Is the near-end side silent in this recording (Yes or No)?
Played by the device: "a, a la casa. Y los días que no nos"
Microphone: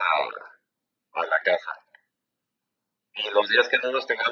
Yes